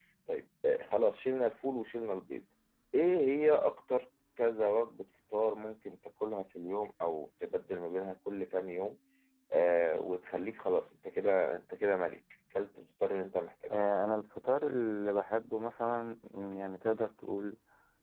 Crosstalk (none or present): none